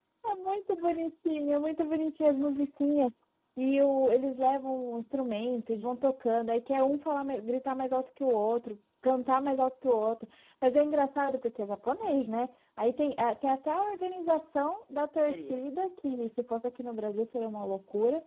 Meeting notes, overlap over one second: none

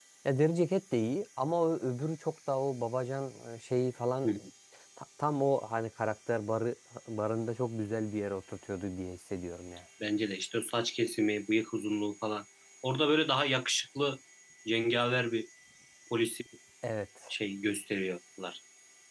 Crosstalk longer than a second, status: none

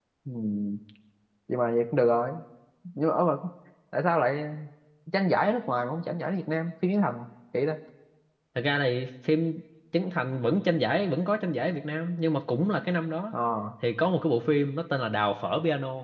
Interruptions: none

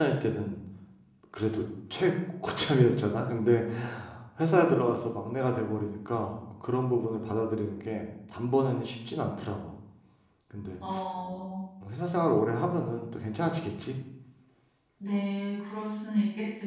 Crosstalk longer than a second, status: none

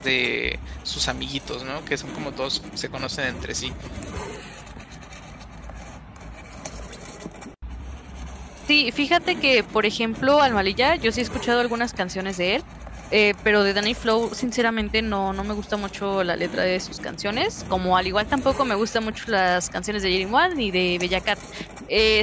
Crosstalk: none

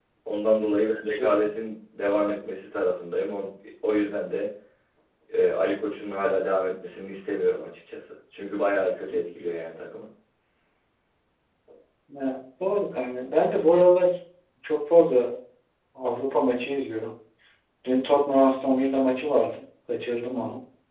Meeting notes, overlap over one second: none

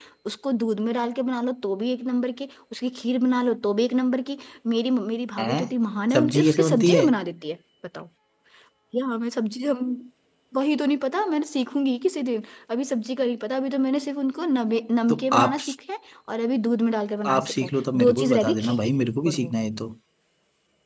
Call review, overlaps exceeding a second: present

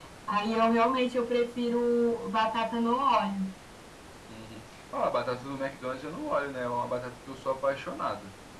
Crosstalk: none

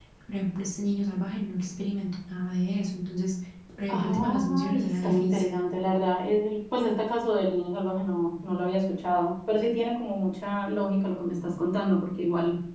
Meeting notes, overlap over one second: present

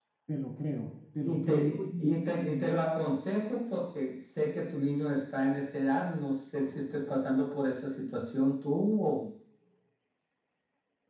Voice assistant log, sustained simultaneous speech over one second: present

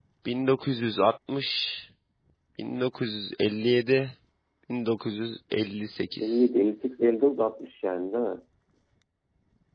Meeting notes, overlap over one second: none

